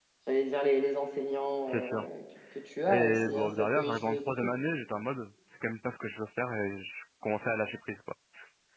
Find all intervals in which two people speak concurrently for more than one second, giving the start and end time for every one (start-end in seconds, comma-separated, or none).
2.9-4.5